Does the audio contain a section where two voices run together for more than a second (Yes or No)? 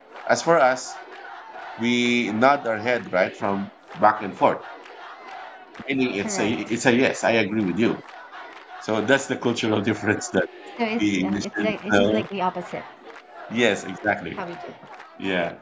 Yes